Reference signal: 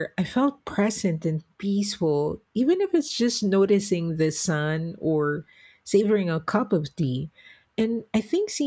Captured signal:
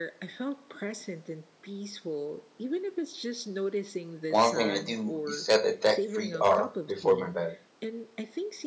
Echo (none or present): present